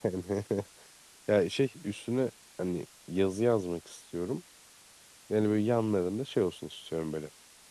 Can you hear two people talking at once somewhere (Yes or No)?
No